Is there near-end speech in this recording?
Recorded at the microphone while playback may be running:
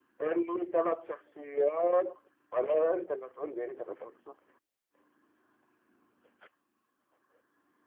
No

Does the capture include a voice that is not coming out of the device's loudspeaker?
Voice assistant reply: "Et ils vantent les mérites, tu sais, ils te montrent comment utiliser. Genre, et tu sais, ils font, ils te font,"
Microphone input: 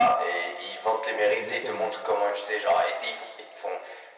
Yes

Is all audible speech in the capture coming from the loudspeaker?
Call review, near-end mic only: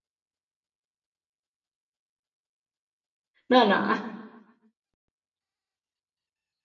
No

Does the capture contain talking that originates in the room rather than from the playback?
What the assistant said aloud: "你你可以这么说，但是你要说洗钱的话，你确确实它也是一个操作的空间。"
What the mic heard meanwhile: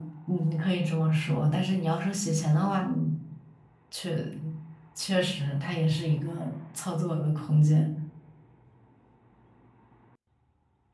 No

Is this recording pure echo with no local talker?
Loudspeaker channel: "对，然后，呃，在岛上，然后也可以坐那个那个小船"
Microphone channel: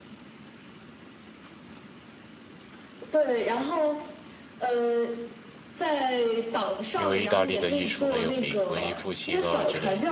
No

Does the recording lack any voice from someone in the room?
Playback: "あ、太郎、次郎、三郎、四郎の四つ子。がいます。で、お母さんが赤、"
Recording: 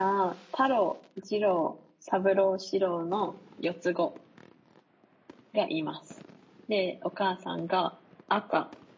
Yes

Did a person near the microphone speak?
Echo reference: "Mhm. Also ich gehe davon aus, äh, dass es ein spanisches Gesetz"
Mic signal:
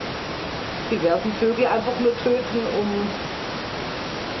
Yes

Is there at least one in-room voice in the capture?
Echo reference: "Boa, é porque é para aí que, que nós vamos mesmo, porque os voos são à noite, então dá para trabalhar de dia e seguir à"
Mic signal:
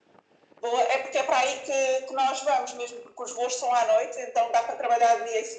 No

